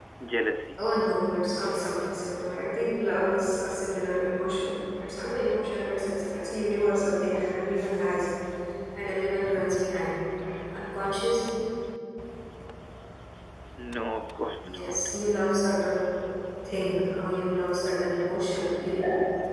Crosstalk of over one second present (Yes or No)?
No